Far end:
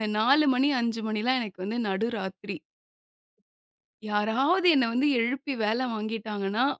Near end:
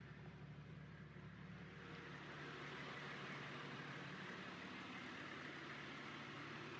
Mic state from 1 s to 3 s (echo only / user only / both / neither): neither